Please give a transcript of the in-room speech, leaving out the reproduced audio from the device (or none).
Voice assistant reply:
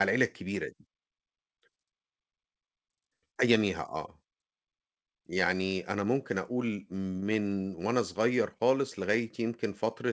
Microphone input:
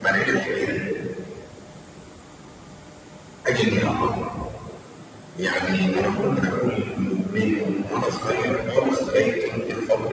none